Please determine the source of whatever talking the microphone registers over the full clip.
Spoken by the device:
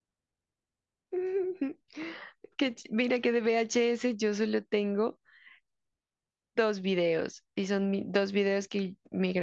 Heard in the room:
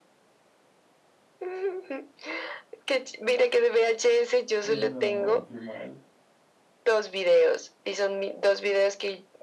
both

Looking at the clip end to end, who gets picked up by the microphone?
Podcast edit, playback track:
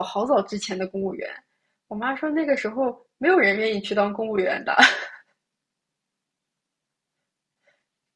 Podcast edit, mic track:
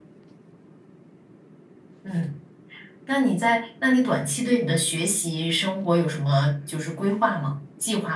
user only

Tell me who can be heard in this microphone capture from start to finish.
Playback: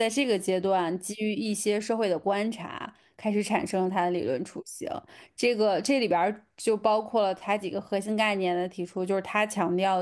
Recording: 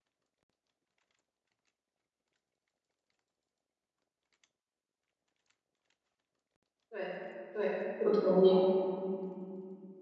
user only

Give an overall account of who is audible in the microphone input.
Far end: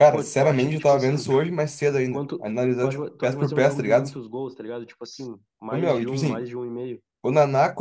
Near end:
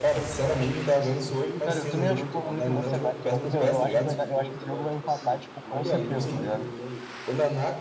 both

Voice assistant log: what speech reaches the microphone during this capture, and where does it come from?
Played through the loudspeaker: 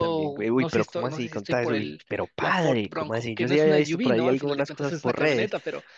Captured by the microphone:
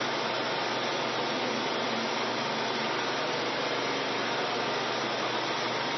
neither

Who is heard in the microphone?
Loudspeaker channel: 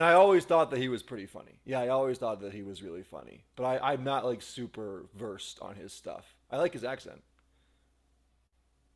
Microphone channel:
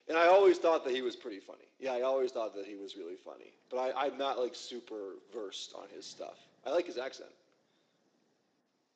echo only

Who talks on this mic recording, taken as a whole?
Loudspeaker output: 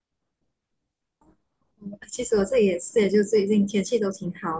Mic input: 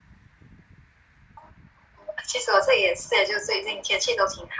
echo only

